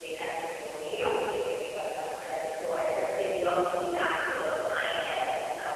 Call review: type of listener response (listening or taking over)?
listening